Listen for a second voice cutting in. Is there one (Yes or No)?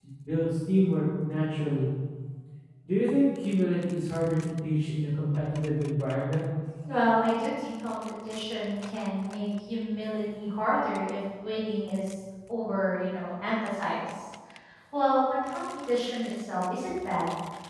No